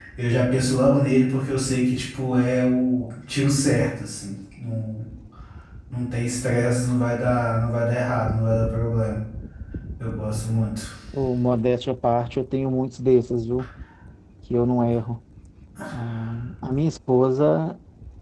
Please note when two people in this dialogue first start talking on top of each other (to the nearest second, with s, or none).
none